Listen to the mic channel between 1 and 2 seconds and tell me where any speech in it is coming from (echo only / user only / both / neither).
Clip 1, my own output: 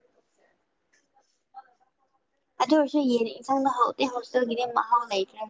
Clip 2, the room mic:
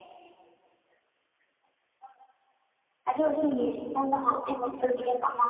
neither